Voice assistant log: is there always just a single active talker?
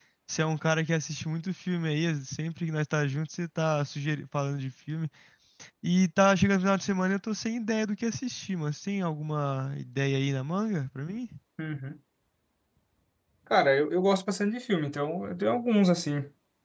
Yes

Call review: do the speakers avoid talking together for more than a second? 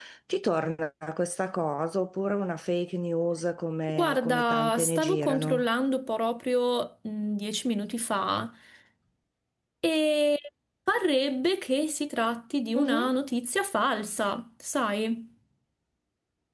No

